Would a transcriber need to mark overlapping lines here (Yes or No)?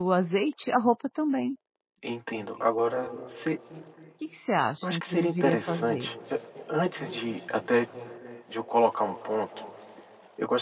Yes